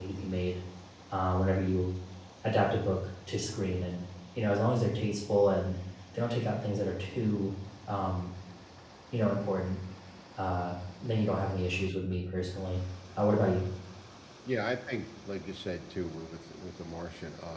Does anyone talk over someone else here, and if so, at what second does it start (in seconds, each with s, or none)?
none